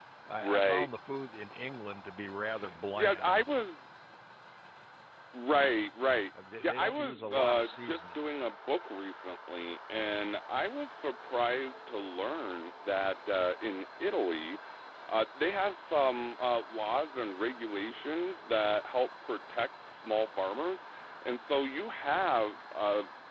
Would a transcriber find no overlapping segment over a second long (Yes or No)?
No